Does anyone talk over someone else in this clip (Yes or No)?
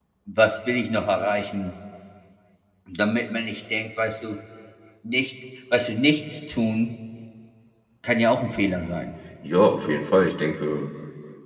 No